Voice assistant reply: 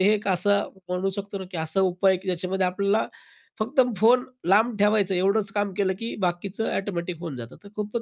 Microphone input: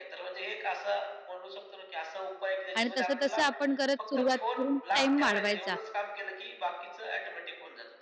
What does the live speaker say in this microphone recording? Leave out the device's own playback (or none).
आणि तसं-तसं आपण करत, सुरुवात करून टाईम वाढवायचा.